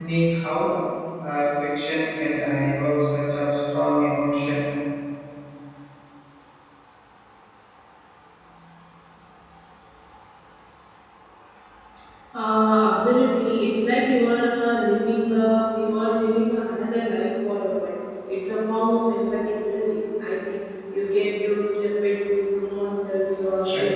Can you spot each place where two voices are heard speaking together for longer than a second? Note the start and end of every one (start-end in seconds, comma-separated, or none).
none